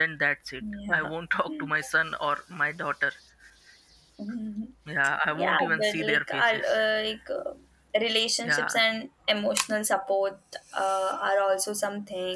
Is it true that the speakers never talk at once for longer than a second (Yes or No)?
No